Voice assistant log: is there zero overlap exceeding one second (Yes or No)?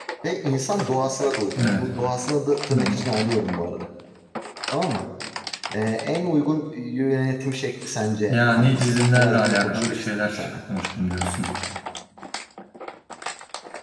No